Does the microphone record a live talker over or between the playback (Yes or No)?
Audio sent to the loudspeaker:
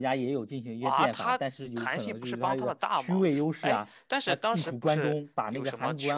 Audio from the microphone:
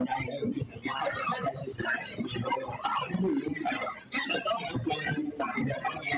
No